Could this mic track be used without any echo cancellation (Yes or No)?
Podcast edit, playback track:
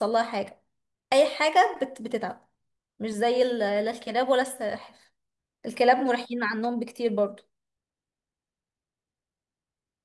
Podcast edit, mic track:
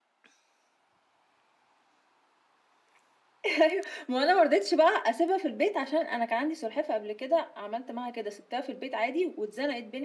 Yes